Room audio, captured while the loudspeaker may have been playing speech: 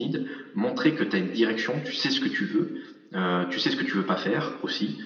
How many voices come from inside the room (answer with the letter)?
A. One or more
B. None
B